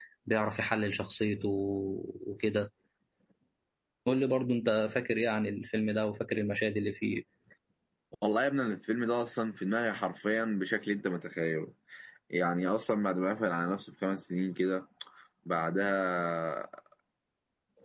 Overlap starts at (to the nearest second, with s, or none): none